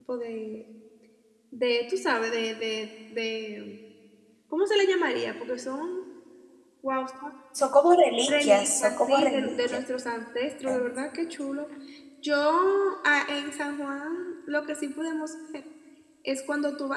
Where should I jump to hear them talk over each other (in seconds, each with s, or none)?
8.3 s